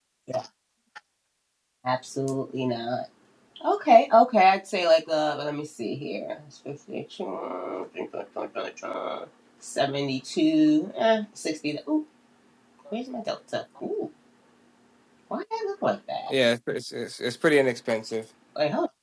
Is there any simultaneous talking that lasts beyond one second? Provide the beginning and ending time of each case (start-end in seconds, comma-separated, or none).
none